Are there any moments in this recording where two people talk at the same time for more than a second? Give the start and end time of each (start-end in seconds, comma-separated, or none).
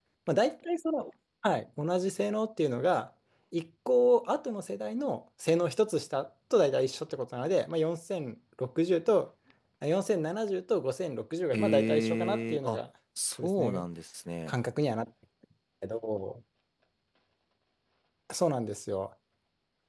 11.5-12.8